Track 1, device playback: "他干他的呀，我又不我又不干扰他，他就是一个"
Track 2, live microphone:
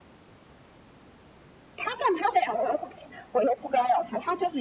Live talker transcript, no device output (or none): none